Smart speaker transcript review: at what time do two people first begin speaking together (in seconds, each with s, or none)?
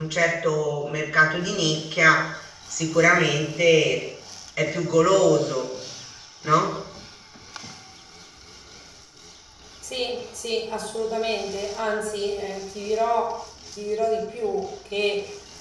none